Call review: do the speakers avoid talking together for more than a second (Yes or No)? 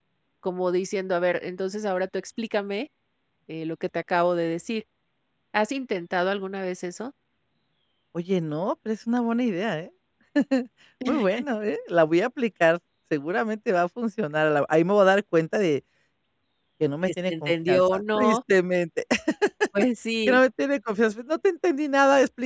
No